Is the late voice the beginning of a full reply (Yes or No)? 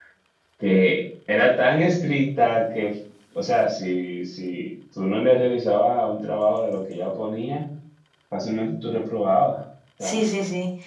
Yes